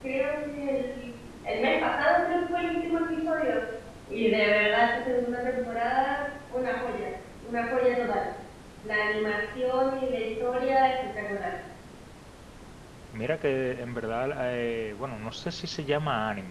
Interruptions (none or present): none